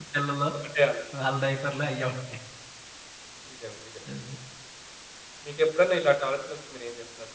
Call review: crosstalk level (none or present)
none